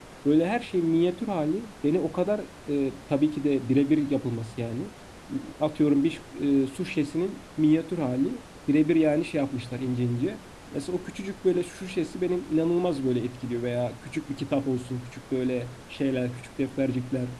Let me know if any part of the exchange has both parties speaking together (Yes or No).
No